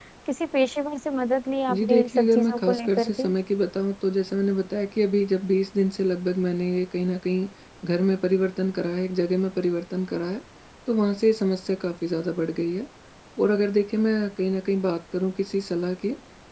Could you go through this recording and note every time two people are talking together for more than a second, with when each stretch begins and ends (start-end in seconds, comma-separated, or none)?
1.7-3.3